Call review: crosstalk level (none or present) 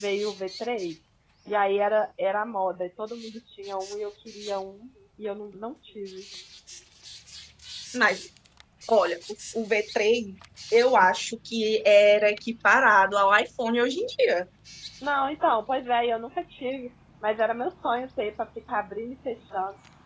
none